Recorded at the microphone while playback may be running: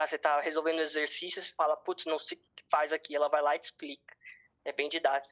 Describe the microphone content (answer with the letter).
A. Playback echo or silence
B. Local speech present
A